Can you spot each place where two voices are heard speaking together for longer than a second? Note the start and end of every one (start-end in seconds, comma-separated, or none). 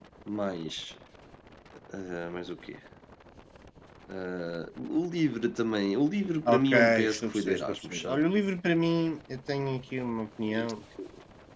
6.6-8.2